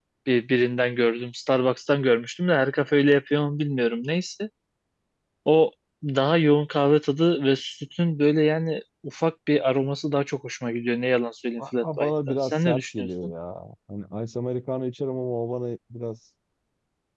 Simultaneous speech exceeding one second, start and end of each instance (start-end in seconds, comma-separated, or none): 11.6-13.3